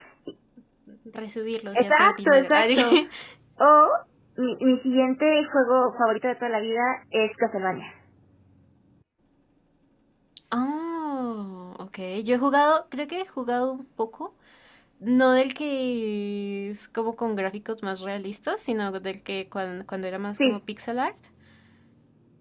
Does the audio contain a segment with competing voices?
Yes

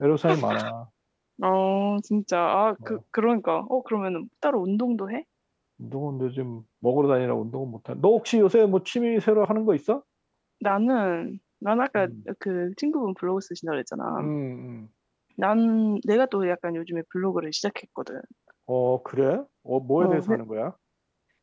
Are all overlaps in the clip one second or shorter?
Yes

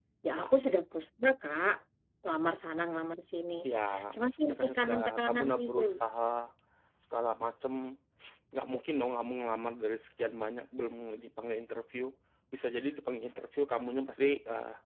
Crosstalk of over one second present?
Yes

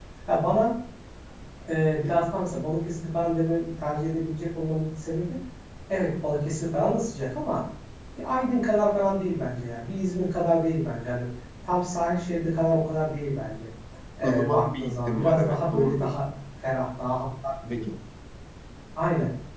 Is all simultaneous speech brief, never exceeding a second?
No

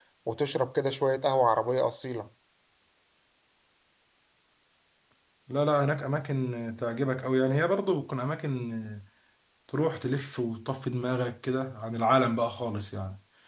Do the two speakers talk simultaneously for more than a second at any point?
No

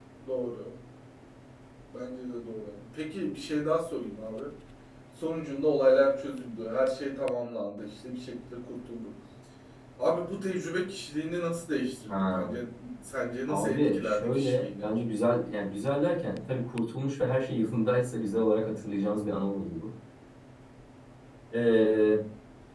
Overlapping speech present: Yes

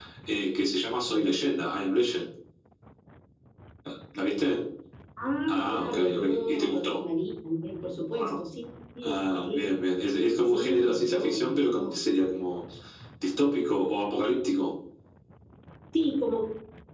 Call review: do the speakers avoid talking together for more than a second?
No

